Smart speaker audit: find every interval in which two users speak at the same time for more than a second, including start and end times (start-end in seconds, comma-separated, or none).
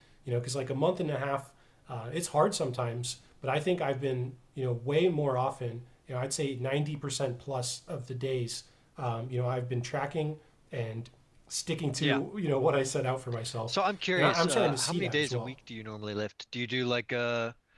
14.2-15.5